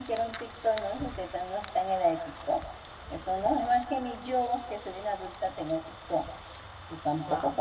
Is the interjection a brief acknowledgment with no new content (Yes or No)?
Yes